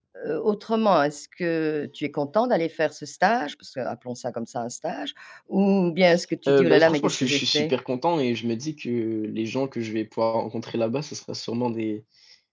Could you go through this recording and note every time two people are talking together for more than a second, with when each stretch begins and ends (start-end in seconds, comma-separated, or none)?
6.5-7.7